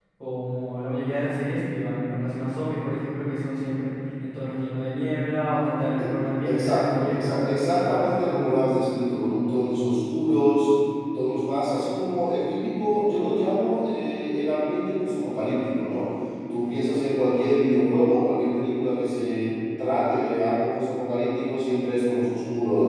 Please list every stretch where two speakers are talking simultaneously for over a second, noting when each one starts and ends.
6.5-8.5

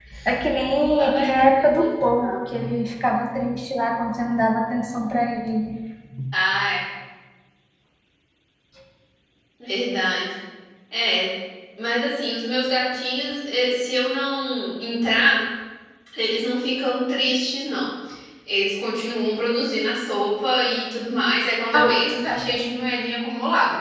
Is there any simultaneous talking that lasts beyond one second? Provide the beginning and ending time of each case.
1.0-2.3

